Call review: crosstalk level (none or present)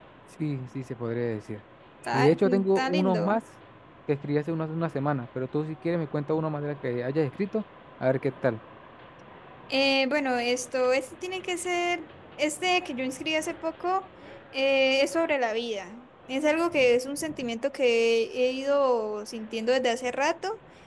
present